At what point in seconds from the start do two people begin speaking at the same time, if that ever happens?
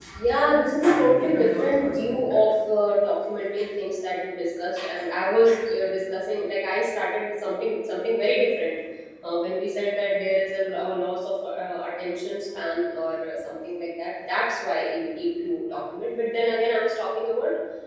0.8 s

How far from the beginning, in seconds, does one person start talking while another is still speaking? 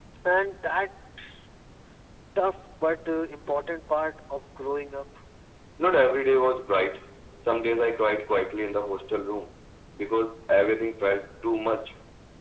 none

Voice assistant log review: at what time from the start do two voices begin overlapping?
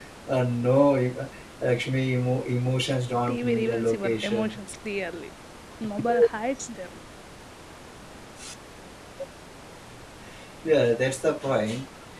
3.3 s

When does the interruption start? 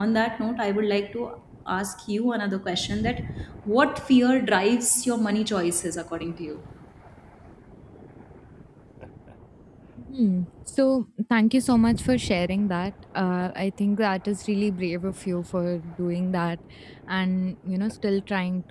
none

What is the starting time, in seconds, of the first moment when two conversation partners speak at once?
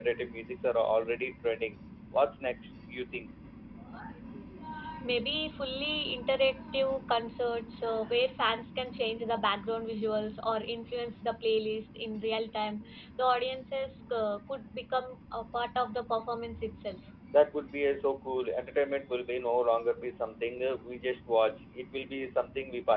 none

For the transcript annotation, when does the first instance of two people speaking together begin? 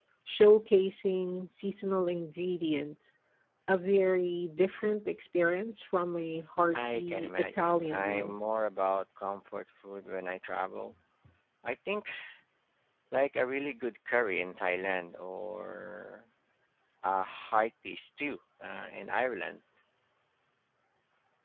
6.8 s

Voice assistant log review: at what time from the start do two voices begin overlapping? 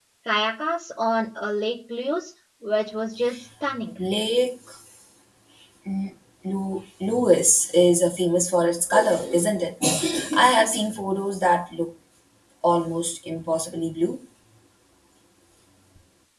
none

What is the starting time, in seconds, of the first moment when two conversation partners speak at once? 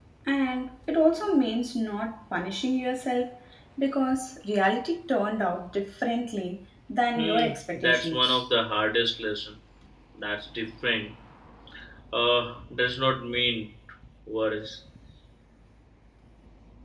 7.2 s

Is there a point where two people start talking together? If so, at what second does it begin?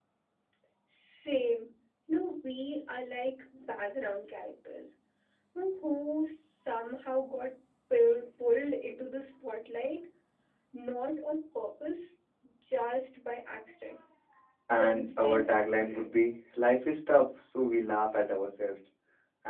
14.7 s

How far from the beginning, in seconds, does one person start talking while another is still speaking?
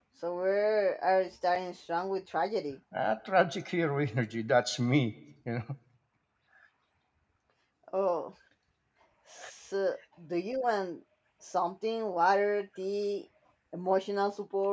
none

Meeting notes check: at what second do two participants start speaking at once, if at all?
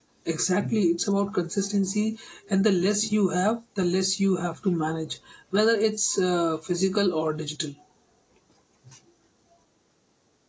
none

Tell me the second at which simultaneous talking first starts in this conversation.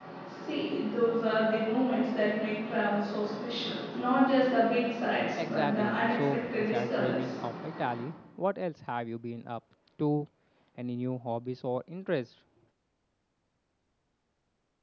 5.4 s

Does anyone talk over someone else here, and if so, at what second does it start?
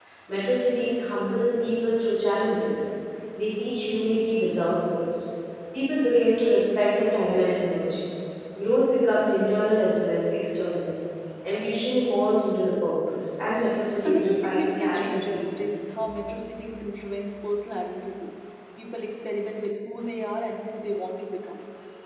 14.0 s

